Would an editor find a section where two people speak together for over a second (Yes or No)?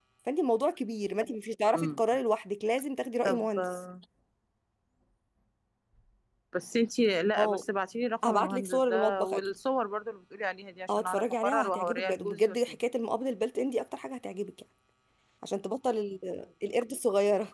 Yes